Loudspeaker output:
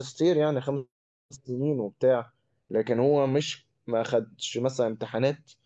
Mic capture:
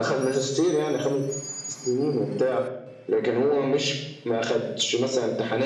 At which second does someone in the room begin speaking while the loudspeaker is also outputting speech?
none

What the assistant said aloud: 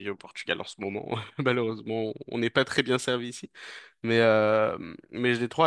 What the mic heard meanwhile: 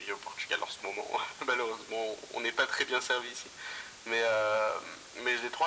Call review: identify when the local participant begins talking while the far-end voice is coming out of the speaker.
none

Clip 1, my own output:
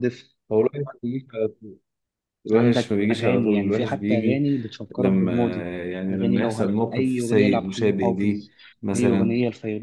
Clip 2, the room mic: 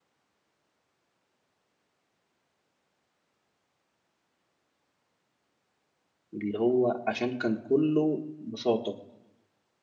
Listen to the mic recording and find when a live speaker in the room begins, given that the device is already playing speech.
6 s

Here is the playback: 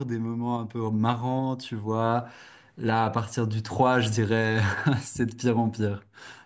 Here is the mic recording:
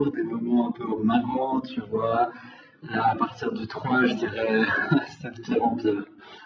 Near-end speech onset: none

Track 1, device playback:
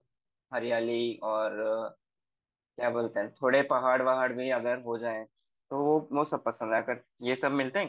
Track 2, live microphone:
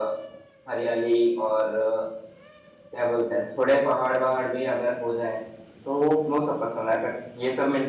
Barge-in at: none

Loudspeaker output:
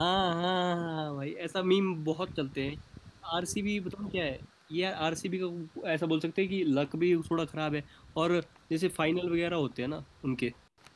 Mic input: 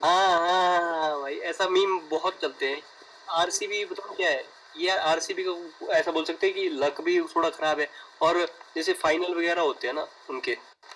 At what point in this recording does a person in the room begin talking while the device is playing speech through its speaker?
none

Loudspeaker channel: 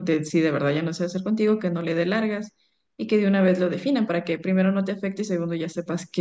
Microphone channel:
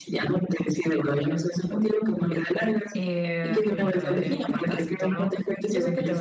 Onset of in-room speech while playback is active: 3 s

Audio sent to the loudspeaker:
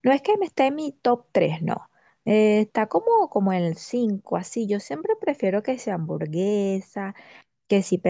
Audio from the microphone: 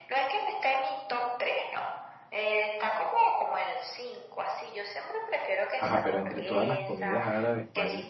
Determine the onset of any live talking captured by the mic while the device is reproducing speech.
6 s

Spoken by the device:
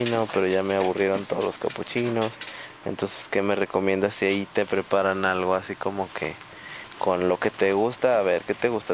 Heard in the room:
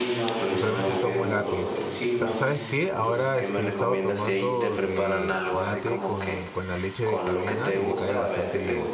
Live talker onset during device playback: 1 s

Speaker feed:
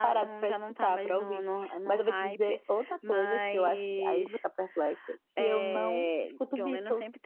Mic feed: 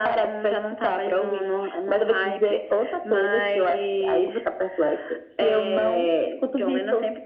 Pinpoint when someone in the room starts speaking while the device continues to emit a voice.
none

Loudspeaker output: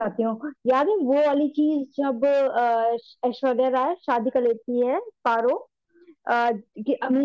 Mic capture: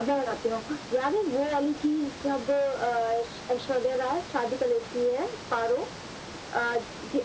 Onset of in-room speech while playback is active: none

